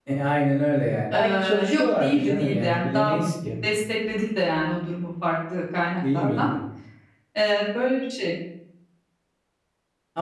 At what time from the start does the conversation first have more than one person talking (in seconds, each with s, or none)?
1.1 s